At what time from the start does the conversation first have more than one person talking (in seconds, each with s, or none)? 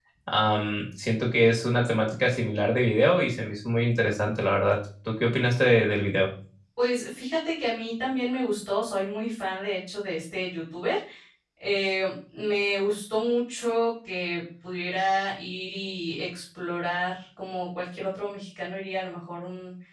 none